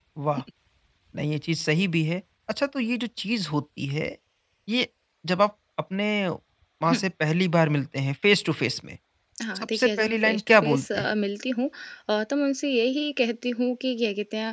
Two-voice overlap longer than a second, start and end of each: 9.5-11.1

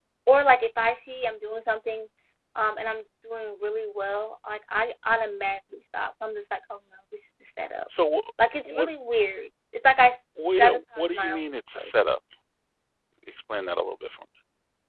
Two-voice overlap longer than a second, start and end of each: 10.6-11.9

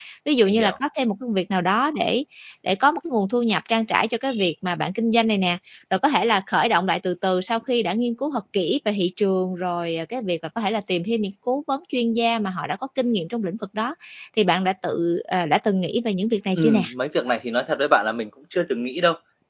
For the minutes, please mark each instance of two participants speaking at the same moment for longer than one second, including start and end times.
none

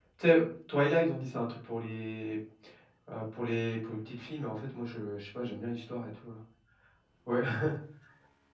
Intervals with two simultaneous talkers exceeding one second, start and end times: none

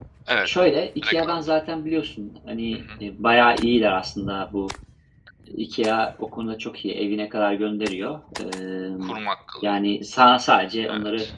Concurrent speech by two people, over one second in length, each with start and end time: none

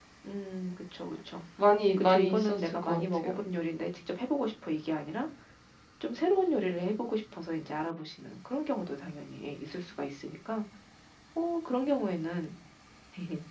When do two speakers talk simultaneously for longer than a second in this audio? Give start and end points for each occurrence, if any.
2.0-3.3

